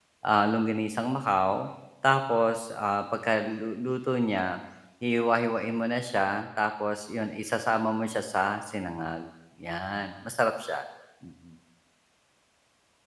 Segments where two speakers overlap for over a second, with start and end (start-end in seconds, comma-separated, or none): none